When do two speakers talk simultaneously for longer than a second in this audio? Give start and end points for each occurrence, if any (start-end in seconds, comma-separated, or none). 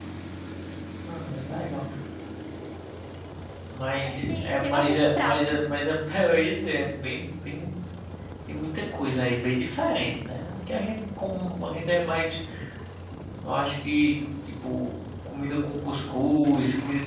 4.0-5.5